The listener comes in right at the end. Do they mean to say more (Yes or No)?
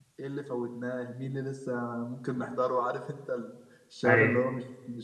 No